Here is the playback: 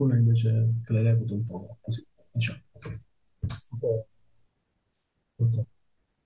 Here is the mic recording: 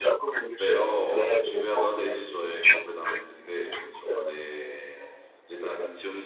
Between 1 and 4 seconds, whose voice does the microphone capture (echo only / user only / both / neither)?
both